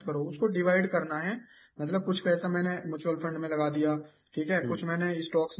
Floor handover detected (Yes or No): No